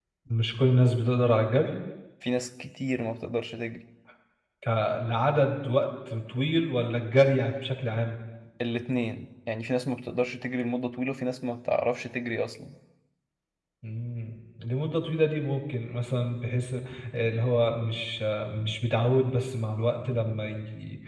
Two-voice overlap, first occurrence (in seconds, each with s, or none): none